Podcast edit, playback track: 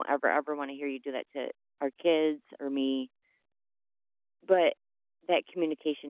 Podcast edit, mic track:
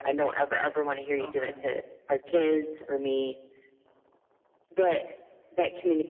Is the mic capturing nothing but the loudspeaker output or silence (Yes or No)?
No